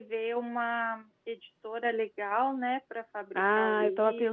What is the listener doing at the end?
taking over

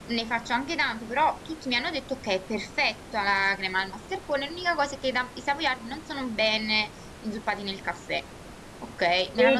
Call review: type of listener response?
taking over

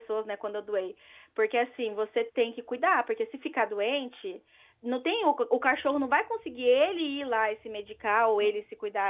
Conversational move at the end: listening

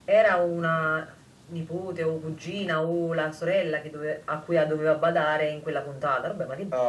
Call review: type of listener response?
taking over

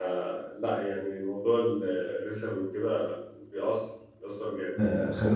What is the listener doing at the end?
taking over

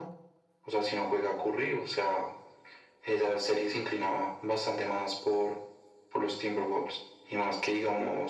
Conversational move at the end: listening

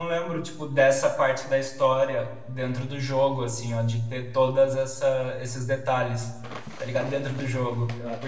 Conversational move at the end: listening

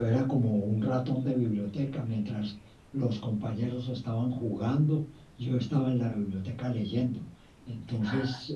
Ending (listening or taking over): listening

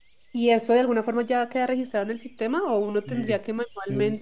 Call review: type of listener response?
taking over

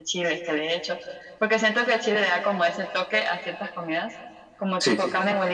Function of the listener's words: listening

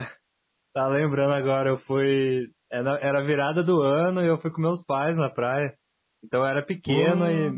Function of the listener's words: listening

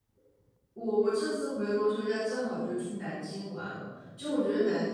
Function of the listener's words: listening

